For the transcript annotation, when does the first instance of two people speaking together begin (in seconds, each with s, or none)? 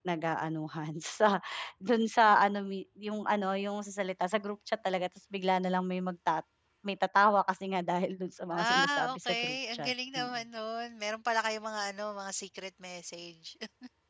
8.5 s